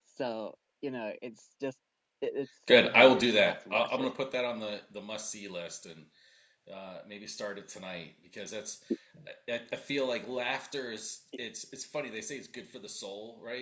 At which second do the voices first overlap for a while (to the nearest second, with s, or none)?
3 s